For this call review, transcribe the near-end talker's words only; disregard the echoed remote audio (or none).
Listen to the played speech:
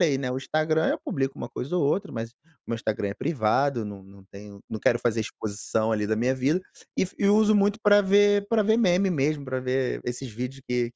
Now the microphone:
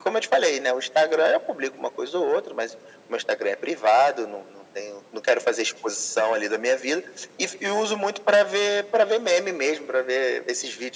none